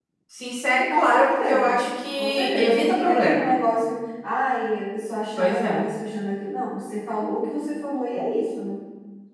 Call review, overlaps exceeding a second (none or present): present